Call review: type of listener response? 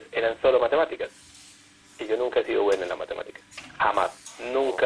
listening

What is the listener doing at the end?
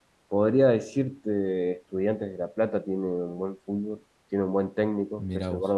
listening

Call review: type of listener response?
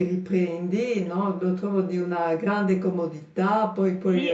listening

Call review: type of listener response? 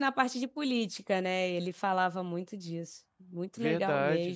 taking over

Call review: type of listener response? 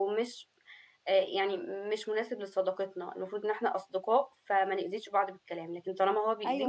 listening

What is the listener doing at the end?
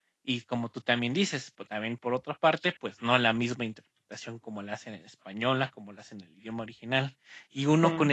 listening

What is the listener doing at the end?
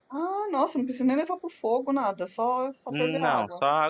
taking over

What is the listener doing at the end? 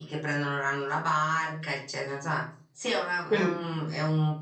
listening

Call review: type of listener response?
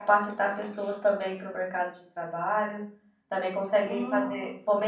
listening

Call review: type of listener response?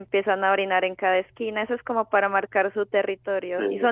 listening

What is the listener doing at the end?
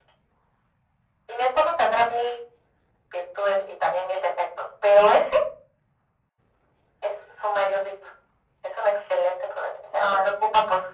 listening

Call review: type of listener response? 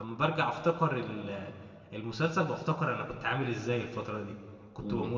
listening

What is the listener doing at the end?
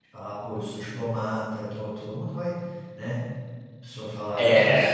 listening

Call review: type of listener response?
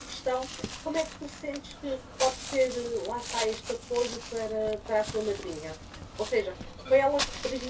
listening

